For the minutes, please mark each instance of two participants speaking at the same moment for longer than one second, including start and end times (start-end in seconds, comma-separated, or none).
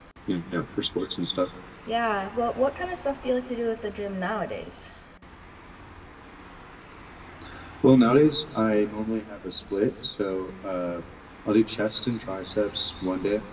none